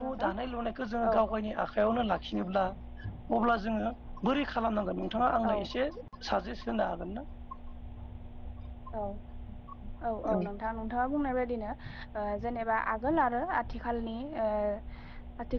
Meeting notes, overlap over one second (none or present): none